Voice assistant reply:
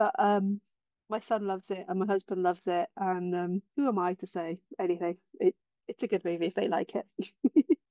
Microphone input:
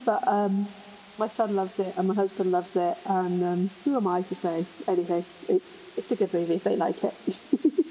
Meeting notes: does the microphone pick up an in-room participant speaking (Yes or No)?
No